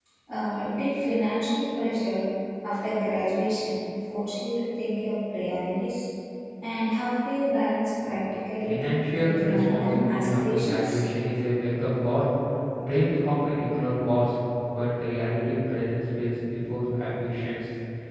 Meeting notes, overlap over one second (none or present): present